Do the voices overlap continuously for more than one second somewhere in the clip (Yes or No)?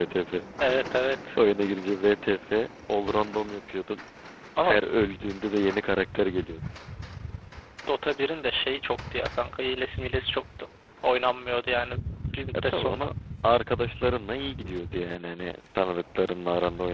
No